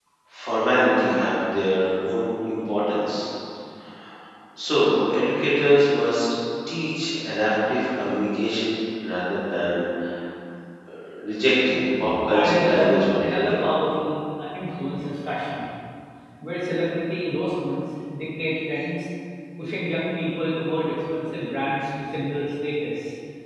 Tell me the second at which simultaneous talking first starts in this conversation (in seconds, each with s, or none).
12.3 s